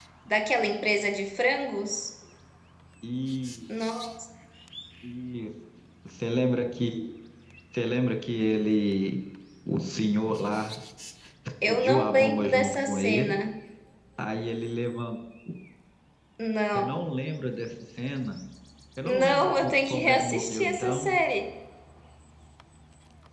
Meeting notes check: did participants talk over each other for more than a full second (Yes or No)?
Yes